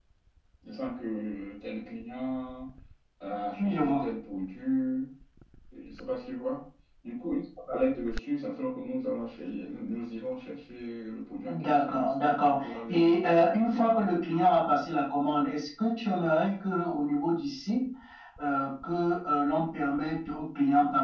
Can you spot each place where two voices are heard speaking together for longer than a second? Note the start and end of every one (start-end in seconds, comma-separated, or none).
11.5-14.0